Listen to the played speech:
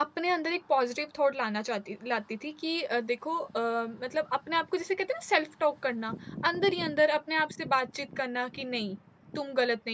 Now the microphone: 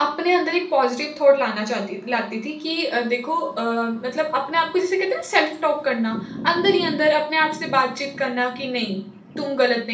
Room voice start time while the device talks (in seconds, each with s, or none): none